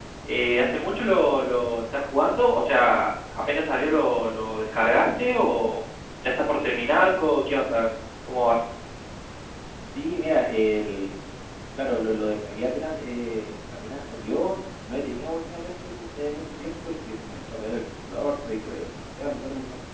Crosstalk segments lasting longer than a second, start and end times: none

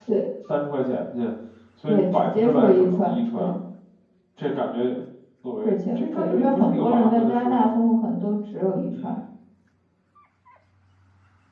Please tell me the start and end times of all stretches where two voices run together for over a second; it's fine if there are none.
1.9-3.5, 5.6-7.7

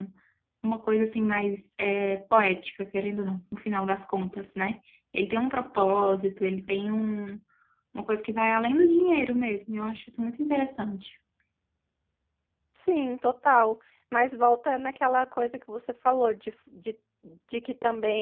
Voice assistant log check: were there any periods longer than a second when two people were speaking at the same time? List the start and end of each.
none

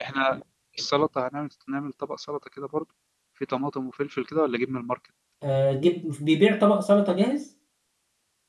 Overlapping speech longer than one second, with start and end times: none

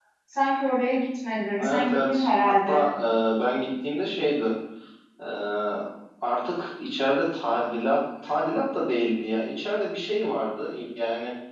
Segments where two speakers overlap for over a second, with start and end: 1.6-2.8

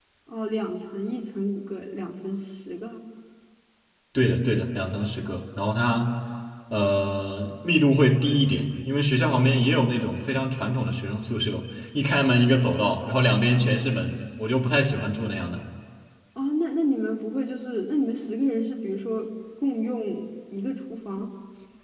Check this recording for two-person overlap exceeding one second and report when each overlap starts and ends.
none

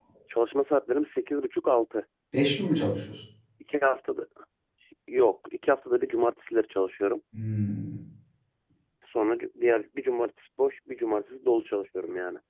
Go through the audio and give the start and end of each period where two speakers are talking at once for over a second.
none

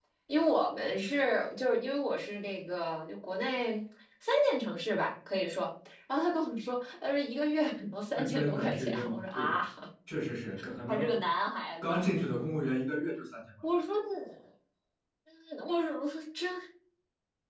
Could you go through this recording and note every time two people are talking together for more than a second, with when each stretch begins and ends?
8.2-9.6

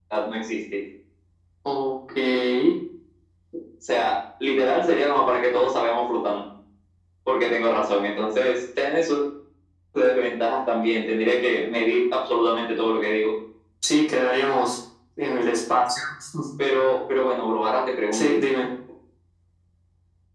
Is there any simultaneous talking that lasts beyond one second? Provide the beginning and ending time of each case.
none

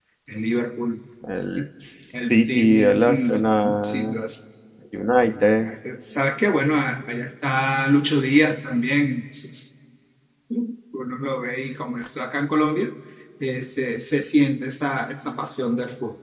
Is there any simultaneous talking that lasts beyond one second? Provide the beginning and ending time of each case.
2.3-4.2

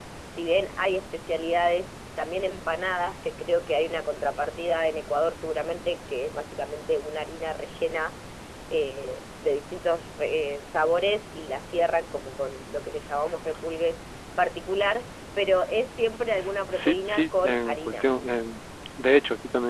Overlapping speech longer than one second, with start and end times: 16.7-18.0

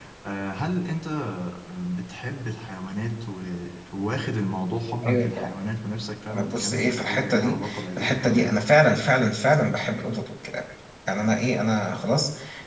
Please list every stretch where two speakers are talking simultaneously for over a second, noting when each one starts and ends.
6.3-8.5

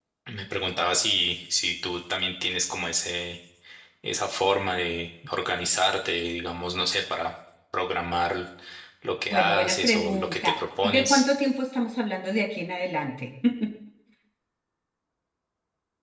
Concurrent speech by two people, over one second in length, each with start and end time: 9.3-11.2

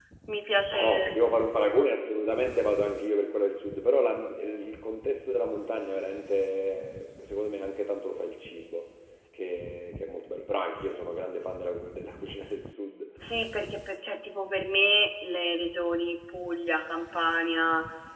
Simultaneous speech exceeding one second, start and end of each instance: none

